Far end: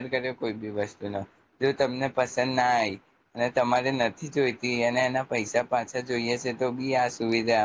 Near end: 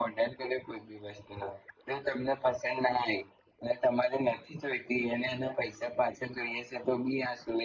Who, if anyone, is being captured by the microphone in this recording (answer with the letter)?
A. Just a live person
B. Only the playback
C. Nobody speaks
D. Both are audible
B